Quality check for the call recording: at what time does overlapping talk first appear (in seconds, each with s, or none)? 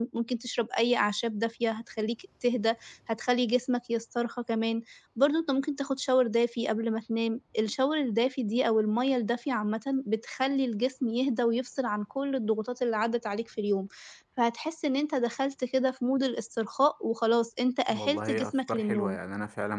17.9 s